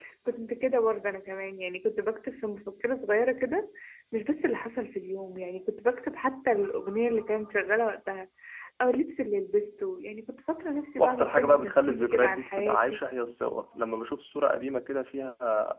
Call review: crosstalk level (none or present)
present